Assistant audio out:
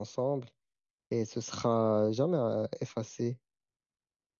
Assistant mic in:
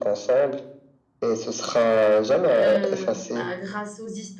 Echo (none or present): present